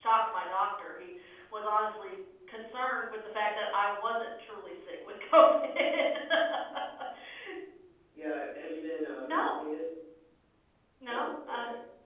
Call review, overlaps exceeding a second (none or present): none